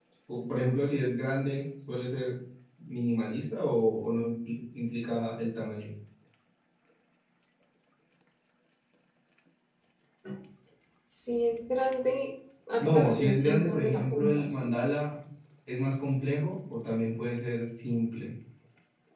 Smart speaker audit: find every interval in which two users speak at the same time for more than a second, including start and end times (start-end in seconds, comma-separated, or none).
12.8-14.7